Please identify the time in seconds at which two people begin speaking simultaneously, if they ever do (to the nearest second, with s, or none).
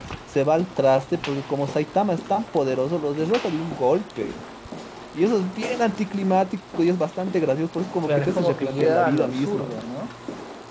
8 s